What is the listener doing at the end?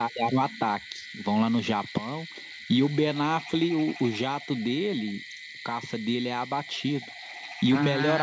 listening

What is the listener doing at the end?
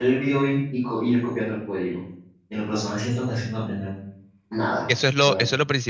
taking over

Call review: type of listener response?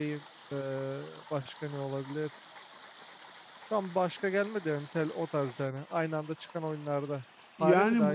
taking over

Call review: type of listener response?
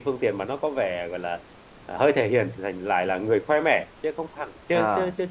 listening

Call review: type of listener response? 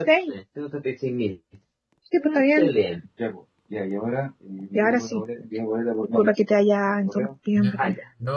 taking over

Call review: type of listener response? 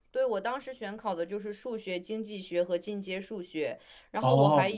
listening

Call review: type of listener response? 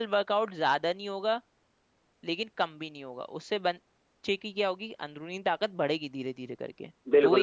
taking over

